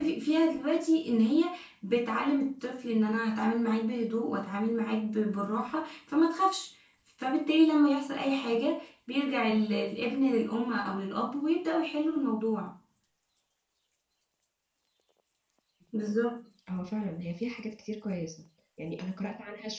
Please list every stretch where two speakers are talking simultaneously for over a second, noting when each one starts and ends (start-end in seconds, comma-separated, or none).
none